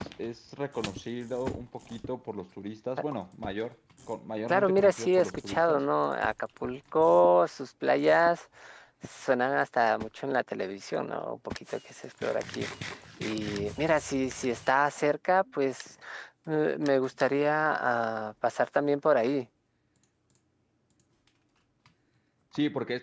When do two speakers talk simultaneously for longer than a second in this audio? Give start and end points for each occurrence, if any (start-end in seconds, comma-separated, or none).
4.5-5.8